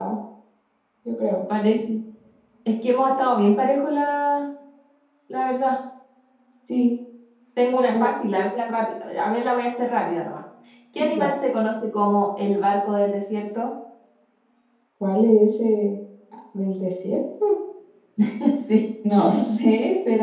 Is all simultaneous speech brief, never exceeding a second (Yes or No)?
Yes